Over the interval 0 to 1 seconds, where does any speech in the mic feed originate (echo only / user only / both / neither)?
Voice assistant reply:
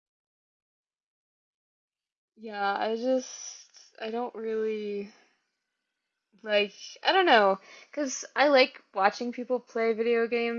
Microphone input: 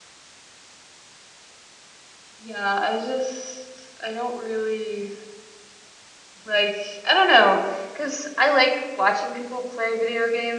neither